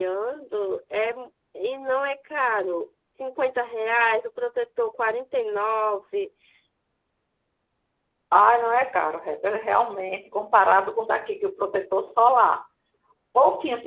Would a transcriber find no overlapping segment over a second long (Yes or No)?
Yes